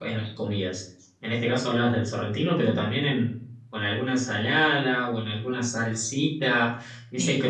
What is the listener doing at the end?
listening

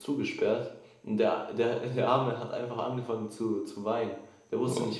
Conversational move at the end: listening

